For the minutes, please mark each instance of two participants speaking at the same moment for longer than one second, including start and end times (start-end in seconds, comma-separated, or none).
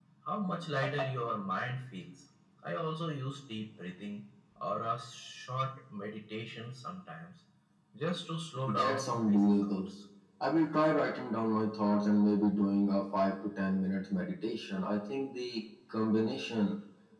8.7-9.9